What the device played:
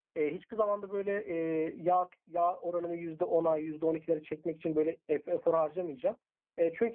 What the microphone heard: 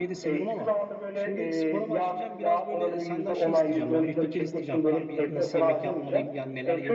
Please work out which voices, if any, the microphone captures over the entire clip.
both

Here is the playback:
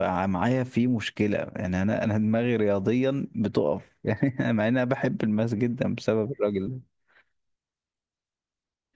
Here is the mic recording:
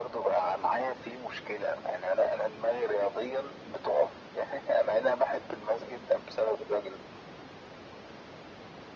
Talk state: echo only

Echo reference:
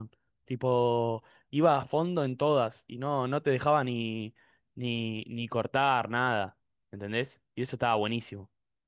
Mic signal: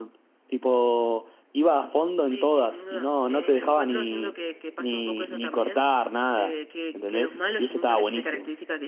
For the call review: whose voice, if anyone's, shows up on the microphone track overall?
both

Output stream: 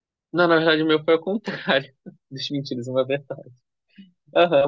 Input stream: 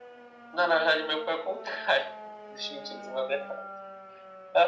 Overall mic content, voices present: echo only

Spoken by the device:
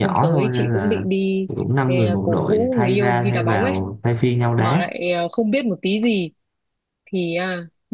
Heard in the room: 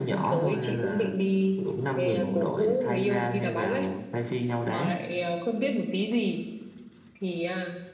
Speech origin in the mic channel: echo only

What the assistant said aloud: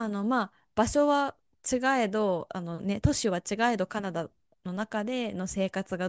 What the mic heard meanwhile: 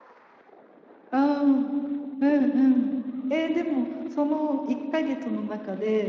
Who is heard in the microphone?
user only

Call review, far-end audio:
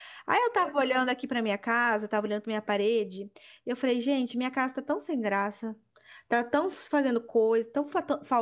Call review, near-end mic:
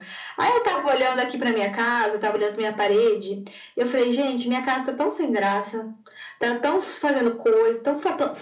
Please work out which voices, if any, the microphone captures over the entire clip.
echo only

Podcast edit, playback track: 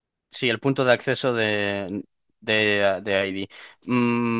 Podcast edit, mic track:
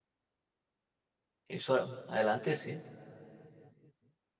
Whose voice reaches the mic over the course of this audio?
user only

